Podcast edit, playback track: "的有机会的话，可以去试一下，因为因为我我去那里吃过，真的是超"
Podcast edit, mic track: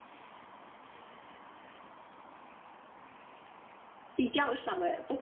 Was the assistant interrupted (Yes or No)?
Yes